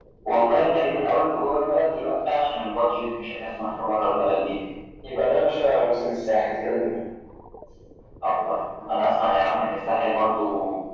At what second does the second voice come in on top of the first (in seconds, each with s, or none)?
none